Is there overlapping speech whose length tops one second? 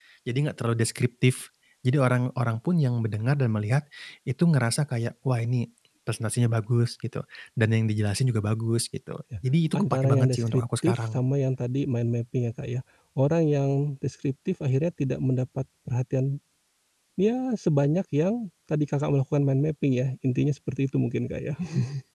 Yes, from 9.8 s

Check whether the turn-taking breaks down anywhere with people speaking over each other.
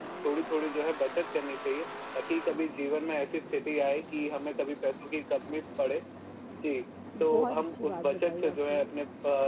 Yes, from 7.2 s

